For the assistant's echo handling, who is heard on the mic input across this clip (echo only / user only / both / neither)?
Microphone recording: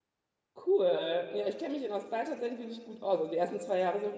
user only